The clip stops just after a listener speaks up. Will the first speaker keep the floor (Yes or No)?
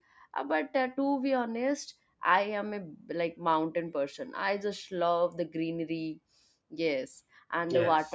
Yes